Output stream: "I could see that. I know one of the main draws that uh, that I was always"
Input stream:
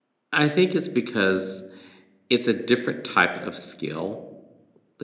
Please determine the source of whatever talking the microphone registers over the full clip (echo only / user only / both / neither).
user only